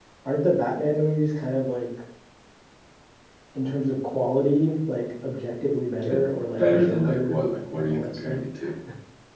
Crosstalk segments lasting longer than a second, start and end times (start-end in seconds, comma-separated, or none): 6.6-8.4